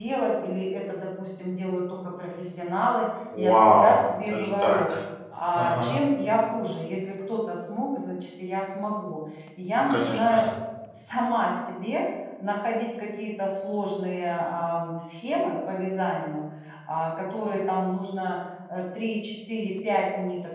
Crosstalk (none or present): present